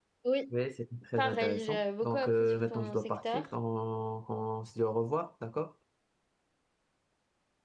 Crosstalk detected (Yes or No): Yes